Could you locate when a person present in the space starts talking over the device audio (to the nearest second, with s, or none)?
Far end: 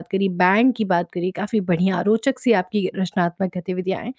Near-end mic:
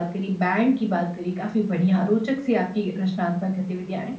none